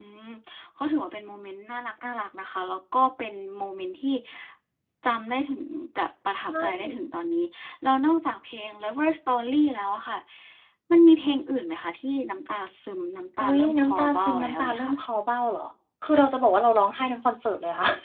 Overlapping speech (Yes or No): Yes